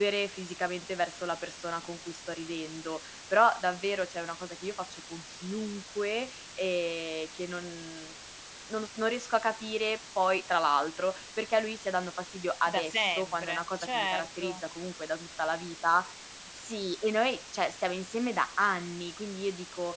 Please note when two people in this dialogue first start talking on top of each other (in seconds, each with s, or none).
12.7 s